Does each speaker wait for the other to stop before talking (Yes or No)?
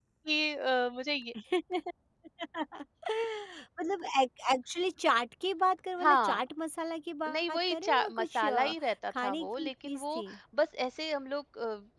No